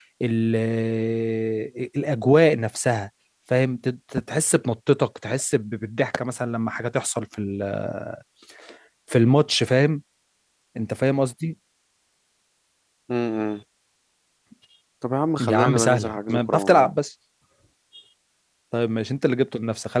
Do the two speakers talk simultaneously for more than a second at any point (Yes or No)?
Yes